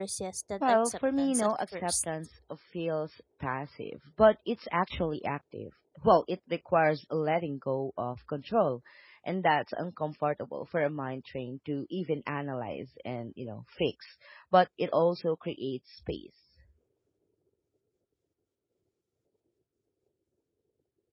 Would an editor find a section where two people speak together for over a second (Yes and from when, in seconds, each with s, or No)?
Yes, from 0.6 s